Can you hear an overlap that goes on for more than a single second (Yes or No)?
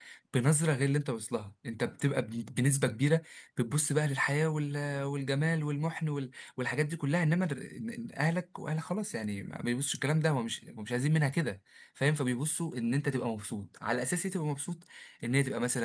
No